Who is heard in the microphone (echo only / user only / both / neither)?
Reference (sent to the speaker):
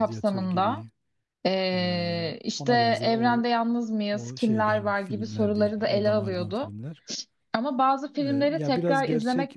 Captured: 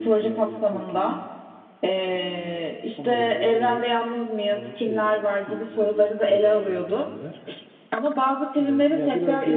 echo only